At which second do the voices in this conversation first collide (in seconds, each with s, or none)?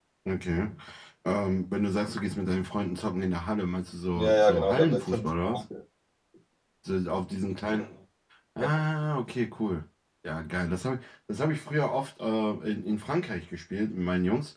4.2 s